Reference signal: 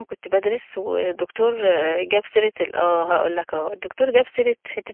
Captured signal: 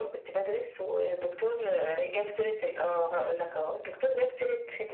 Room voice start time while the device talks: none

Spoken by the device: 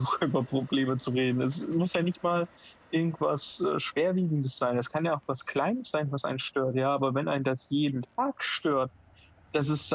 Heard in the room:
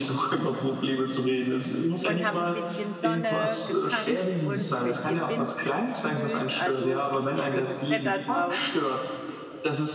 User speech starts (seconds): 2.0 s

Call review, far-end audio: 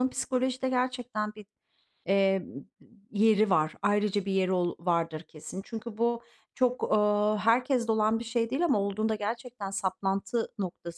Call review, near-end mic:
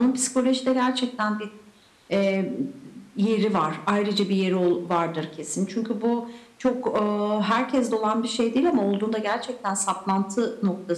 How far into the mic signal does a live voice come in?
none

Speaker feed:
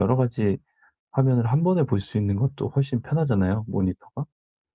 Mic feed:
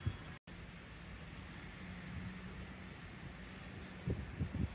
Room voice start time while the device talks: none

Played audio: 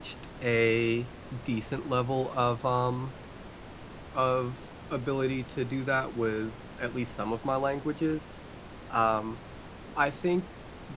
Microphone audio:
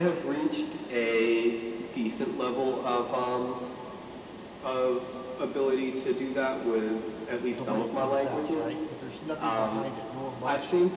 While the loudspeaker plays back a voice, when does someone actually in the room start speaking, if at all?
7.3 s

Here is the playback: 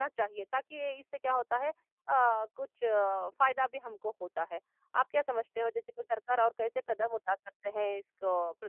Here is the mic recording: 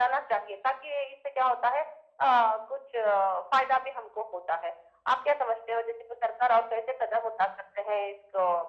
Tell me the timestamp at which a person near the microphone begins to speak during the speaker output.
none

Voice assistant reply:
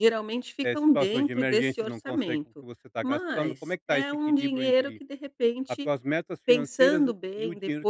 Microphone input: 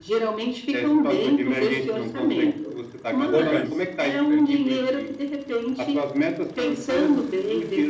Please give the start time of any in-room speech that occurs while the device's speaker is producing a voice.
2.5 s

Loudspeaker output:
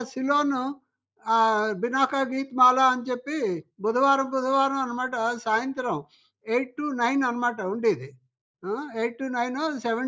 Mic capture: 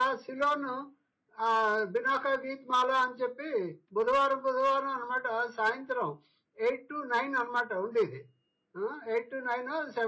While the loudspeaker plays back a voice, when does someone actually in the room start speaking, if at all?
none

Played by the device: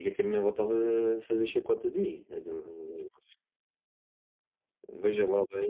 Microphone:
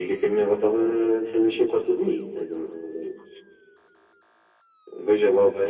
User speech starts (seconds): none

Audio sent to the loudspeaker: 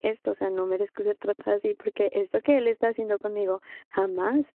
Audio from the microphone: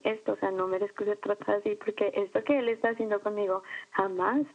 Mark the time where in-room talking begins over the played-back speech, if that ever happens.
none

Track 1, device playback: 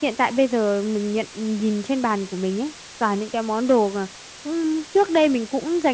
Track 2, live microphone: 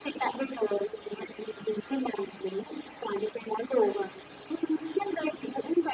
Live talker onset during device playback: none

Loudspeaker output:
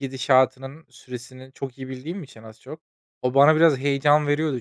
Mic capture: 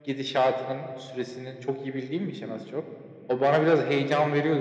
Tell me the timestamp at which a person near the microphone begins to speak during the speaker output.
none

